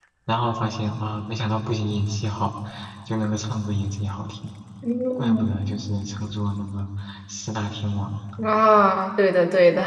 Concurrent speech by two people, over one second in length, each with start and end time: none

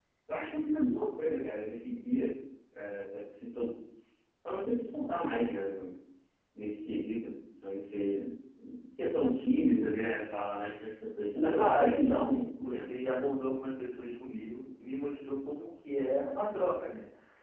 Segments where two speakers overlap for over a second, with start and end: 11.6-12.9

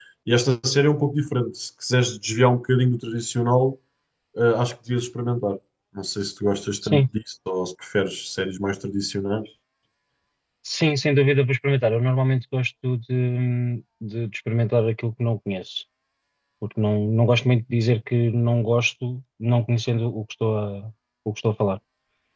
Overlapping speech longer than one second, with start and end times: none

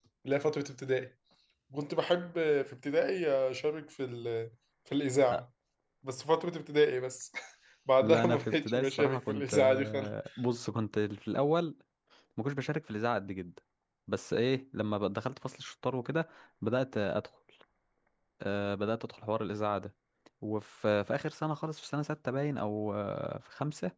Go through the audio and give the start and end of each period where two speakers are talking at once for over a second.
8.0-10.1

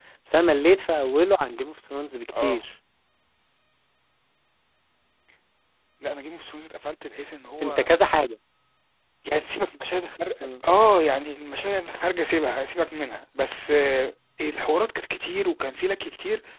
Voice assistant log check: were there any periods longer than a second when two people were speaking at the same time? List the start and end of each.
none

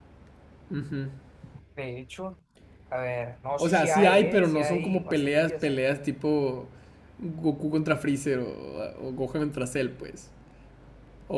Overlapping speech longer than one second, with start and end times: 3.6-5.8

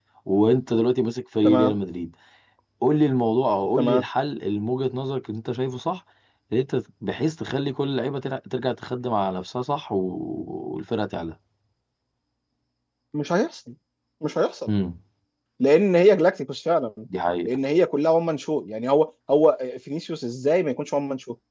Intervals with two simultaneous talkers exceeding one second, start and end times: none

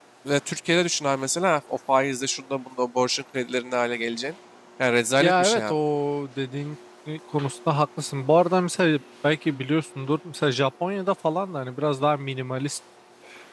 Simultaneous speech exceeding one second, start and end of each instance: none

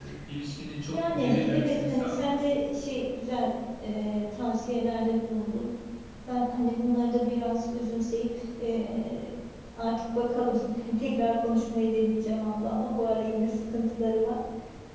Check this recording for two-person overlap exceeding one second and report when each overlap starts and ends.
0.9-2.4

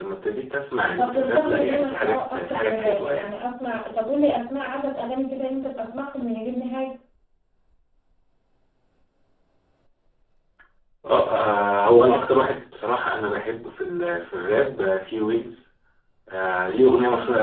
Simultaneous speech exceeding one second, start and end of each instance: 0.9-3.3

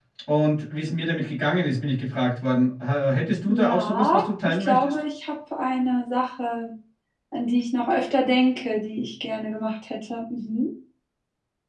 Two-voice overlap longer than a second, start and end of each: 3.5-5.0

